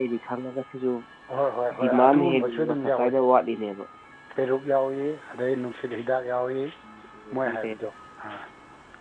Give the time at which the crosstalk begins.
1.8 s

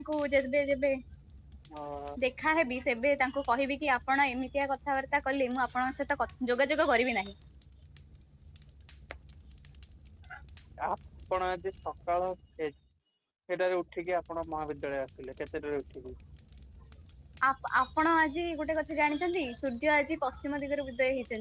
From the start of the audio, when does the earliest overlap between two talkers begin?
none

